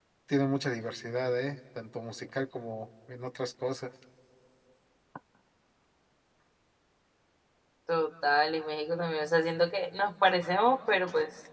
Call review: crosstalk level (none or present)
none